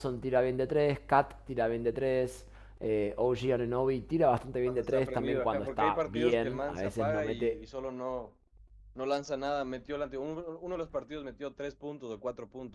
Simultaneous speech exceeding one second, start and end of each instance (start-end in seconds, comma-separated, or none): 4.7-7.5